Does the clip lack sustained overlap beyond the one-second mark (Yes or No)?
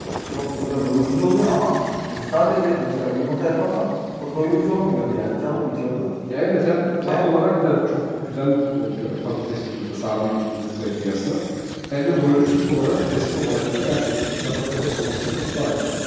Yes